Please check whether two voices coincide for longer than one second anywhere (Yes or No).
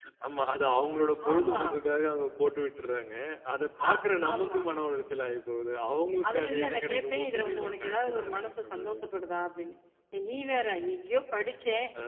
Yes